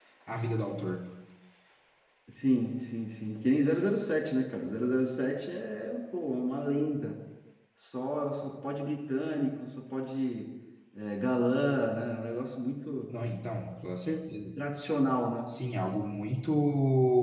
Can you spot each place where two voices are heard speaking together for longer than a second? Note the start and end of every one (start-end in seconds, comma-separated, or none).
none